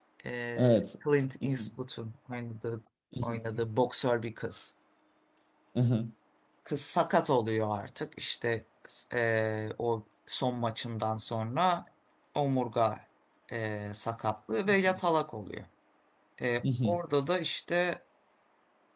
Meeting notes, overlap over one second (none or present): none